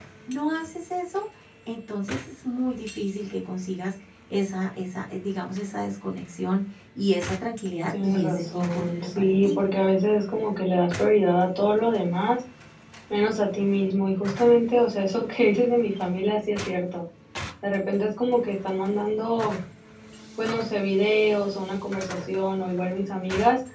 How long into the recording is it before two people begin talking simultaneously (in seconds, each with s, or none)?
7.9 s